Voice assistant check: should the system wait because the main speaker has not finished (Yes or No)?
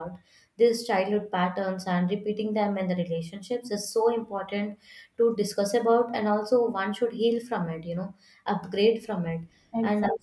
No